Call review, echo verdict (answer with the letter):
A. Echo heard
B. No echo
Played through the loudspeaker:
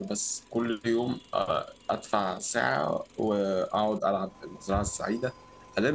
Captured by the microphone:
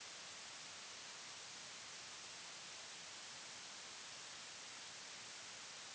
B